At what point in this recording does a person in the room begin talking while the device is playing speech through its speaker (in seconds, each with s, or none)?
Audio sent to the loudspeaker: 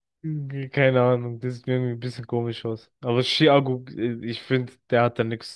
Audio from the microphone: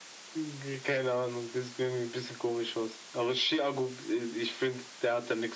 none